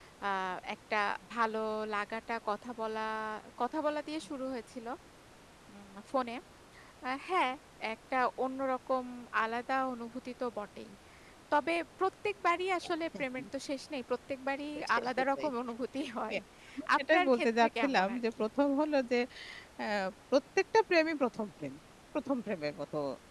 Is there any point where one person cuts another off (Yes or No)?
Yes